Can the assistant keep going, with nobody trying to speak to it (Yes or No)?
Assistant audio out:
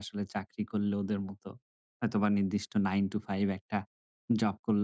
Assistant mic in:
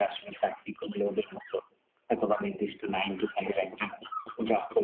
Yes